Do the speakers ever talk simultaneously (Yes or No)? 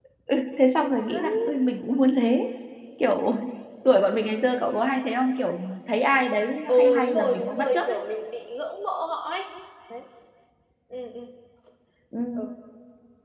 Yes